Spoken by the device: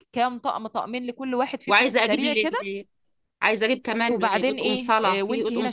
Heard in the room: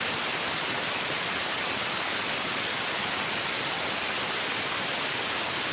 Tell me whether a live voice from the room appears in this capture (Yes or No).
No